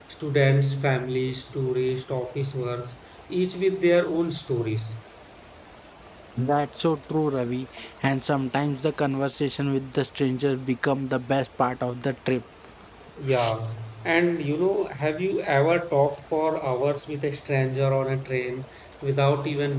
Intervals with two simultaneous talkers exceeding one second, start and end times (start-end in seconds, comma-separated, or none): none